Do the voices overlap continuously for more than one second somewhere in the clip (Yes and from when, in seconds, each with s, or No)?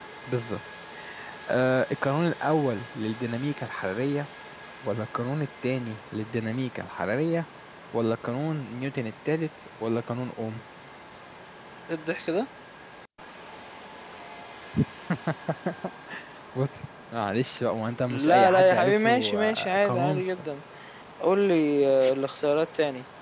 Yes, from 18.1 s